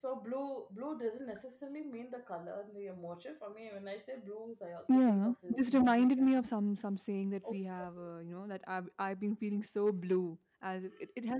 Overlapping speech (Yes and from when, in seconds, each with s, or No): Yes, from 4.9 s